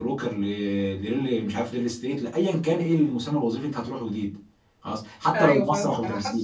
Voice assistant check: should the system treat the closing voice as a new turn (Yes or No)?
Yes